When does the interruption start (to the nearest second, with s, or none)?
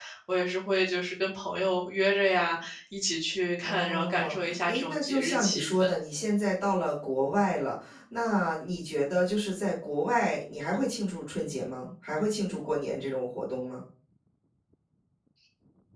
4 s